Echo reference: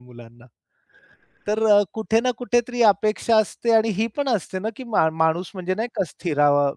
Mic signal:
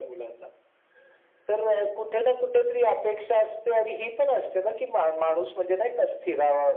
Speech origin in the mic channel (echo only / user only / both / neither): echo only